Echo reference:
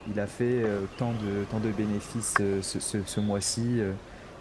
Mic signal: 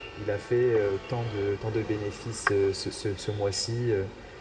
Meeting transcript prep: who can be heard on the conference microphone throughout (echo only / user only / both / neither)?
echo only